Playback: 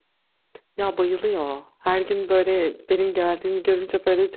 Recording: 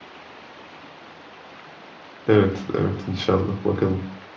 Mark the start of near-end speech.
2.3 s

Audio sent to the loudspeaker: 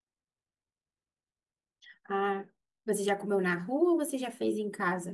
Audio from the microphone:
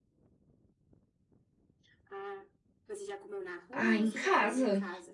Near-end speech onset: 3.7 s

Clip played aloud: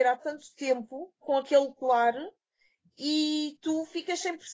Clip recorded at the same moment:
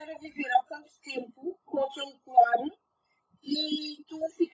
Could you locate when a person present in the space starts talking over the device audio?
none

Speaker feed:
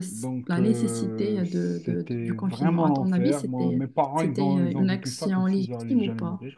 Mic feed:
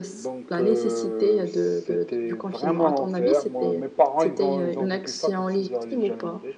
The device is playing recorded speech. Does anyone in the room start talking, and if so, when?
none

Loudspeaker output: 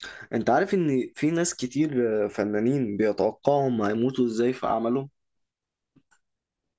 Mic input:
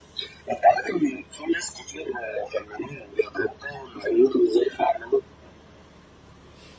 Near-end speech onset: none

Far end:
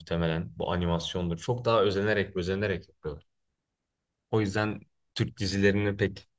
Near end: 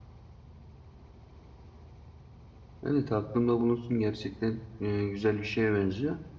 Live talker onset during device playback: 2.9 s

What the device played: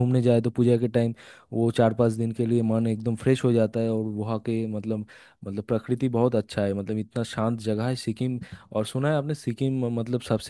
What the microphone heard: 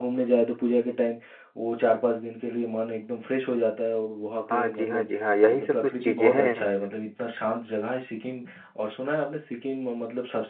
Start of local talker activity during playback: 4.5 s

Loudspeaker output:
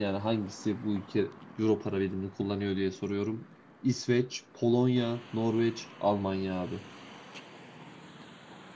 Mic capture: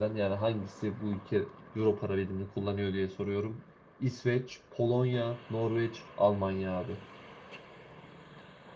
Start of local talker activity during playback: none

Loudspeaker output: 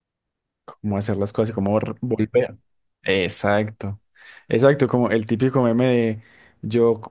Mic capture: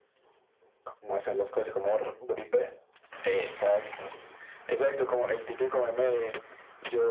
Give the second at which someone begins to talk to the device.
none

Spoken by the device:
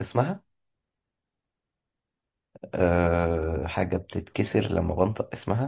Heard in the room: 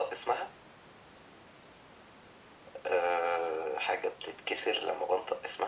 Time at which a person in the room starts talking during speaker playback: none

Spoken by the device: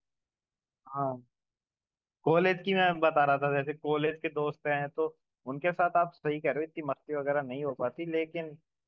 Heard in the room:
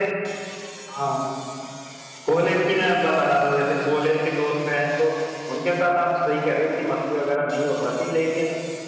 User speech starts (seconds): none

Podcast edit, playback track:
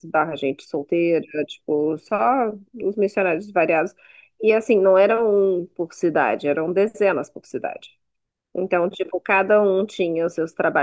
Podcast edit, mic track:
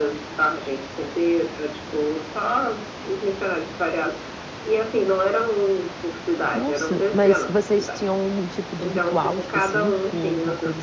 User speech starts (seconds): 6.5 s

